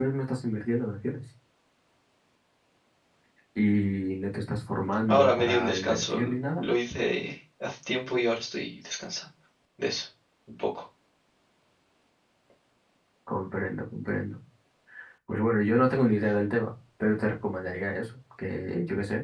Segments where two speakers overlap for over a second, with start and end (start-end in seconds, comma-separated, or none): 5.1-6.6